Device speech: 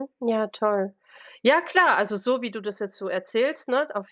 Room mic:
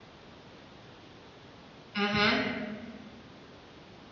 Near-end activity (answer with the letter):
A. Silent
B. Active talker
B